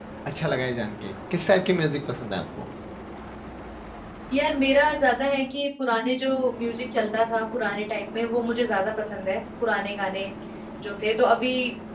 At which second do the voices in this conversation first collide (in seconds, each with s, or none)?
none